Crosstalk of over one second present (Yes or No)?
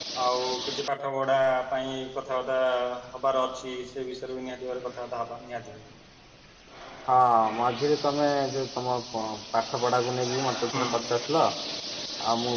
No